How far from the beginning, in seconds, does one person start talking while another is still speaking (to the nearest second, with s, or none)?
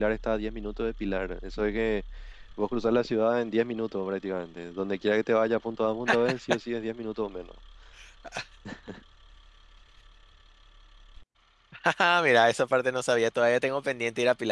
none